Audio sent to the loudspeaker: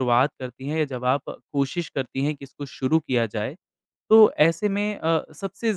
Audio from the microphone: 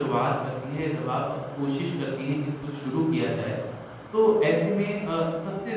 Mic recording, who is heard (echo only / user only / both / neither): echo only